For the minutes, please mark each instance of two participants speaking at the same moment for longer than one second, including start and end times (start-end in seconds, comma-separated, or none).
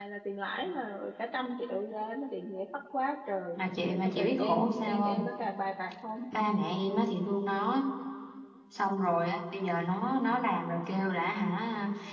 4.0-5.3